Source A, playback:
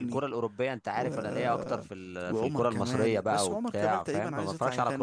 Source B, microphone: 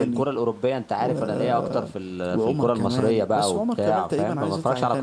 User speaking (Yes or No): No